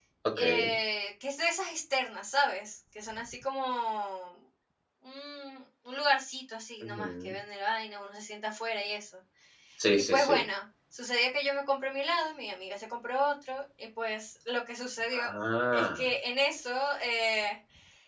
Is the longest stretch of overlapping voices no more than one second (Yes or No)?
Yes